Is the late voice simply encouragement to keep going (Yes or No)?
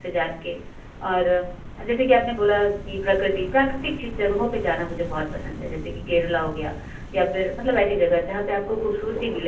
No